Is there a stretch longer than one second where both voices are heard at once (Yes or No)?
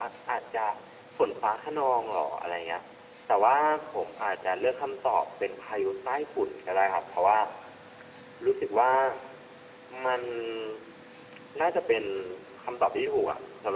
No